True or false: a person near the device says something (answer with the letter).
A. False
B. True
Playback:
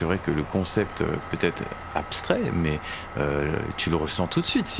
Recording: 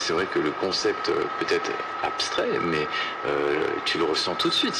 A